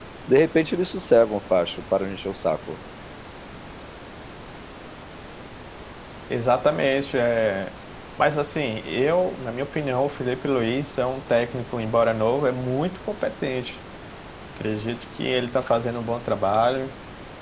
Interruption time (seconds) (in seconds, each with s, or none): none